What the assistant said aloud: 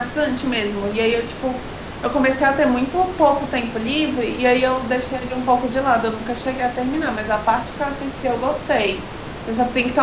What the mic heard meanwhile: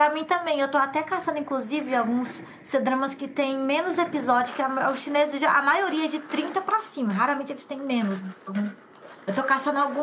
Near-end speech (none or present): present